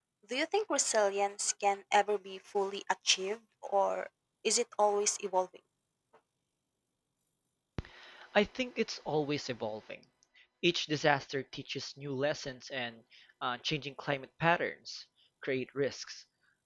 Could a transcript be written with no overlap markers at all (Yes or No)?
Yes